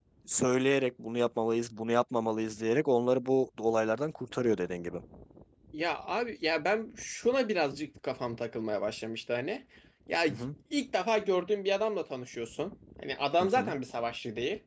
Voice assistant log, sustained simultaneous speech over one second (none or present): none